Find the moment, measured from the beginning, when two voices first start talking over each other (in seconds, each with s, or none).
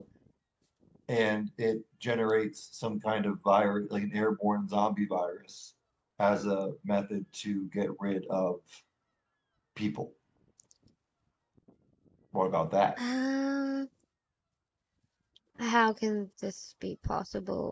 none